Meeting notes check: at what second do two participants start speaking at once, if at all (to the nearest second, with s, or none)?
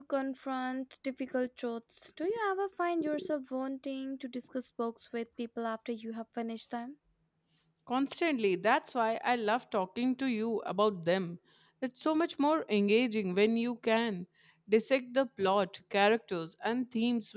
none